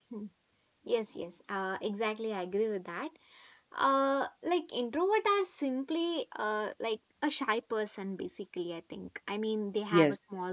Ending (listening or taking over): listening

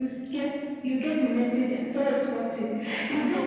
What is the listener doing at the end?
listening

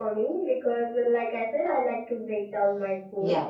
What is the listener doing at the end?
listening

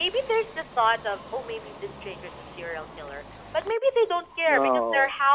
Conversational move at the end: listening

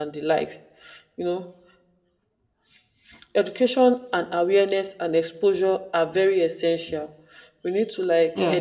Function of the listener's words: listening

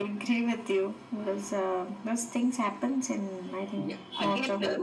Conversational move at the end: taking over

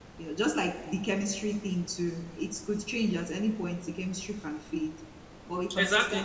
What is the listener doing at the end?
taking over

